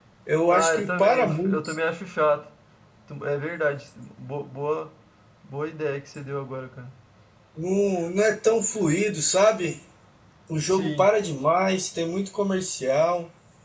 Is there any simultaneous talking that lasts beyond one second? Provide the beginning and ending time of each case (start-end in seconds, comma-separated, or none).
0.5-1.8